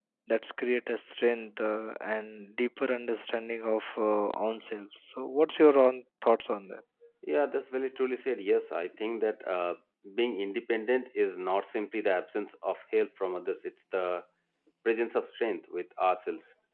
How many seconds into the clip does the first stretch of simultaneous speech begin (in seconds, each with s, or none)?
none